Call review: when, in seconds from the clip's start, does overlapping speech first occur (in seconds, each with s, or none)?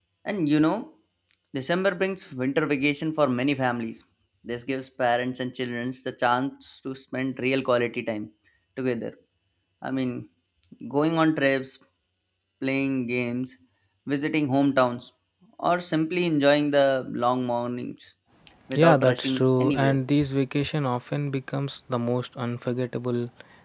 18.7 s